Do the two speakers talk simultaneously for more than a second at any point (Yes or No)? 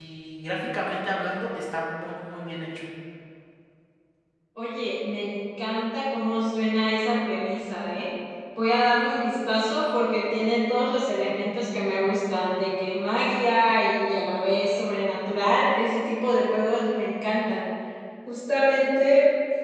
No